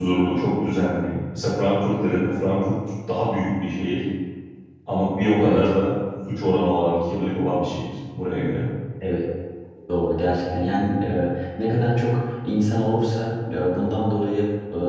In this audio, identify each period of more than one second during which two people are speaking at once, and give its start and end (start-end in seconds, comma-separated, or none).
none